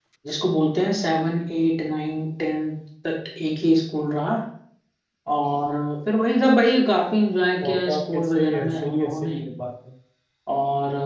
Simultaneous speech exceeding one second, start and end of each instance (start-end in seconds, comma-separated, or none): 7.7-9.4